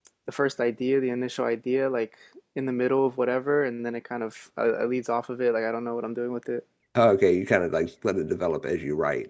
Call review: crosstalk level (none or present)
none